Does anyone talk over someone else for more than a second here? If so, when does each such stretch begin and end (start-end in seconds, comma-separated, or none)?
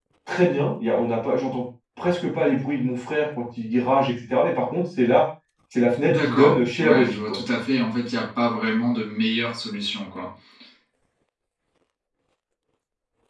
6.0-7.4